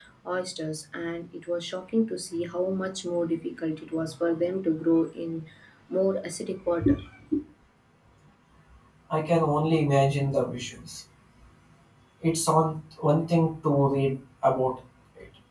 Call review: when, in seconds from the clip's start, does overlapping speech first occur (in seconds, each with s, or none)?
none